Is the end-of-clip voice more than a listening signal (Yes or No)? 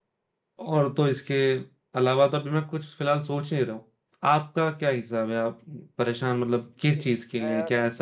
No